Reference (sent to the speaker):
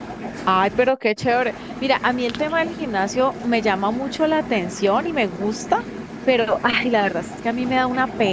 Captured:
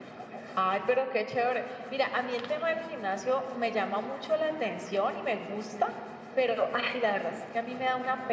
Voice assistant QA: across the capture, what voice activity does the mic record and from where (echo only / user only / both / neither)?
echo only